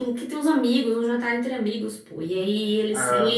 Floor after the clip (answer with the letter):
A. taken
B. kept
B